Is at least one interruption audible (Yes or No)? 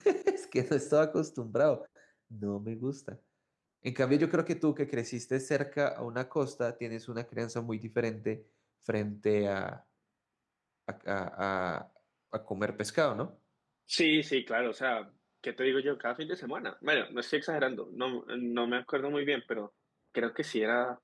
No